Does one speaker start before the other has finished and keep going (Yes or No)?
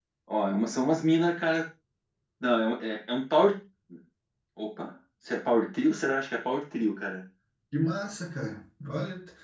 No